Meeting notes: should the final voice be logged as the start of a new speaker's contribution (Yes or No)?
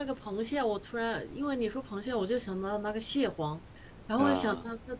No